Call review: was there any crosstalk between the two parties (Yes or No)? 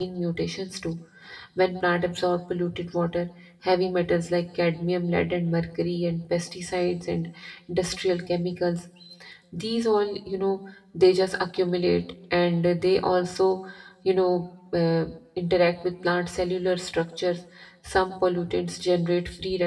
No